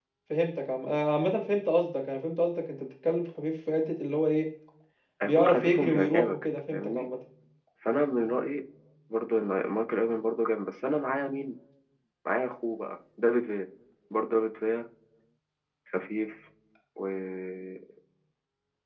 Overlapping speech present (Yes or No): Yes